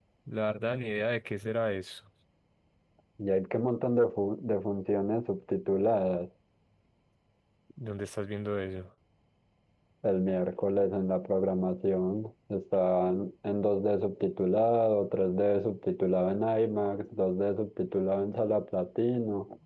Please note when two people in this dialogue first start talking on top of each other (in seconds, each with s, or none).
none